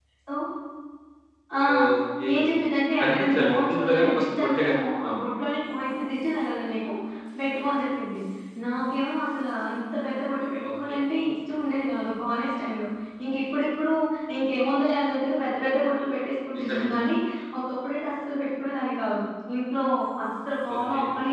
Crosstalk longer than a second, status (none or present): present